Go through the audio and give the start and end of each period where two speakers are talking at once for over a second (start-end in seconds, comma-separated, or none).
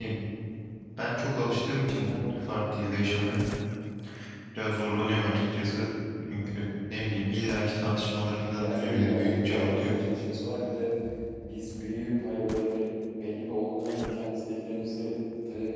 8.6-10.0